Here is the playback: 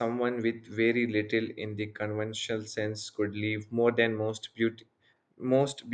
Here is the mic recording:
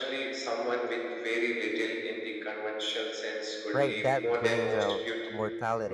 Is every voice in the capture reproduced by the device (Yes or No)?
No